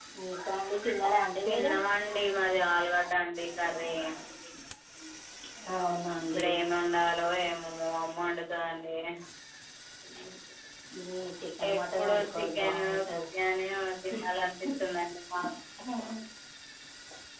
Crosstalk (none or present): present